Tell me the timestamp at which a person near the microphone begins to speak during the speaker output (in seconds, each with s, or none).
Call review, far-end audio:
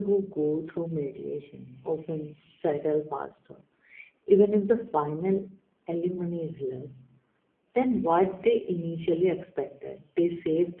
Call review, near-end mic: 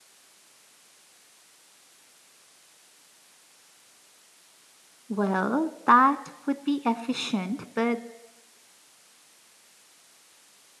5.1 s